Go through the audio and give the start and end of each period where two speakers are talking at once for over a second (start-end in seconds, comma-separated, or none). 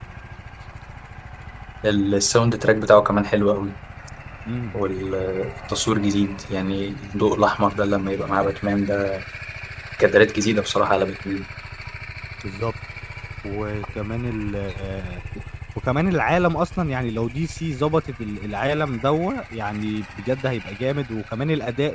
none